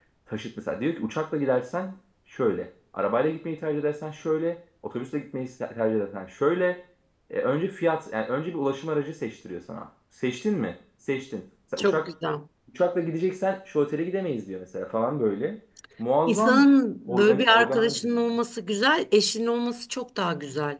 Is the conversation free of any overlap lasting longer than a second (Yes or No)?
No